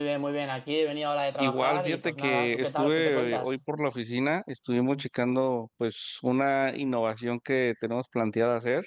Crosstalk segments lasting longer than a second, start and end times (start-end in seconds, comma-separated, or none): 1.4-3.5